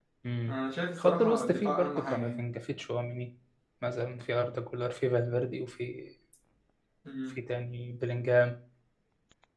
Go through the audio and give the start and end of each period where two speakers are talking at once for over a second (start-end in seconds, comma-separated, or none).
1.0-2.4